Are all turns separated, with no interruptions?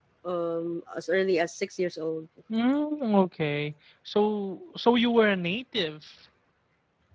Yes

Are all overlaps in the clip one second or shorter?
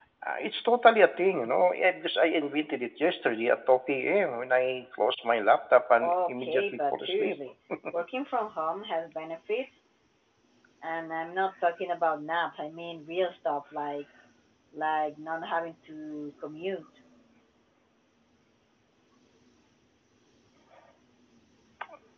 No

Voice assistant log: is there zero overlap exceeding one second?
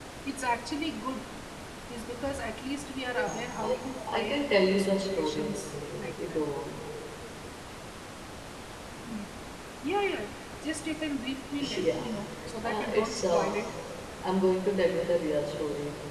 No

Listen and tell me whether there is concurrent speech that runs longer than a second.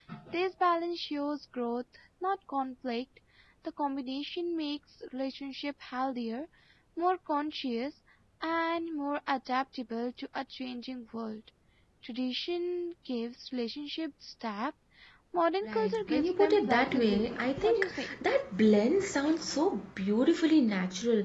Yes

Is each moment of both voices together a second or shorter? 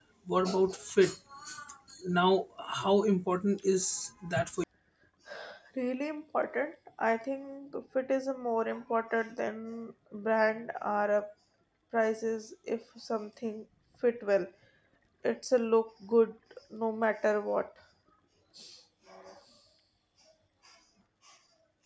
Yes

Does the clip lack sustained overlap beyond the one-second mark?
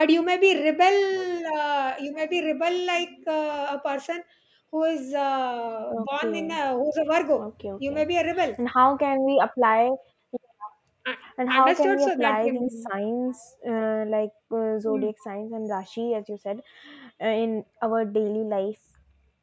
No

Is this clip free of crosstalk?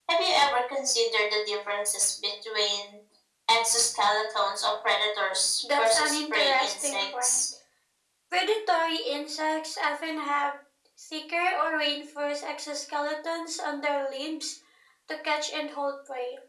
No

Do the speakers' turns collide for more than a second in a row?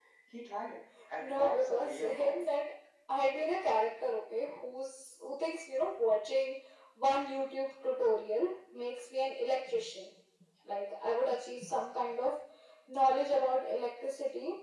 Yes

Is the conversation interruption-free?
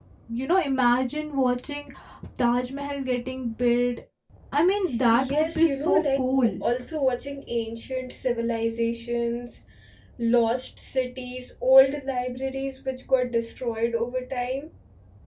No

